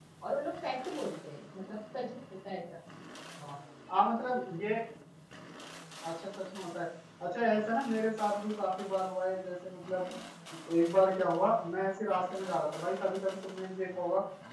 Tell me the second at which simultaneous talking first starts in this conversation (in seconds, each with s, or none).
none